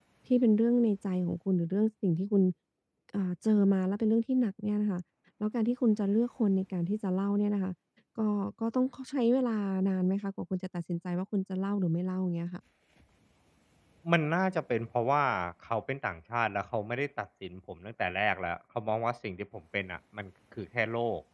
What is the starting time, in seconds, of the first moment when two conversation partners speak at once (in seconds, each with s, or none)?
none